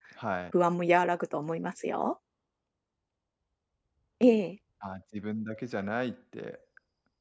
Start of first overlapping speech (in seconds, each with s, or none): none